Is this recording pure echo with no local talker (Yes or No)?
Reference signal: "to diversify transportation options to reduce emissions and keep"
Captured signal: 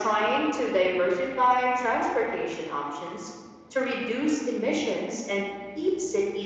Yes